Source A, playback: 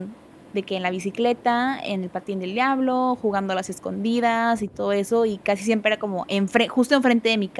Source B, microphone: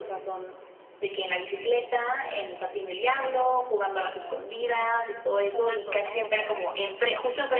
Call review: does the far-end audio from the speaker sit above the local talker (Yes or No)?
Yes